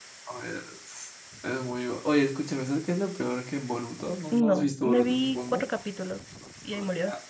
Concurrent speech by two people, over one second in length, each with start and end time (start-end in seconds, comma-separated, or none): 4.3-5.6